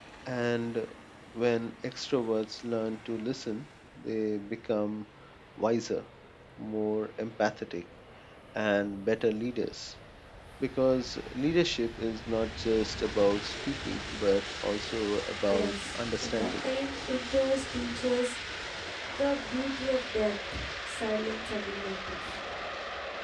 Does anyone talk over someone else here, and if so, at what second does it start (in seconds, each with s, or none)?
15.5 s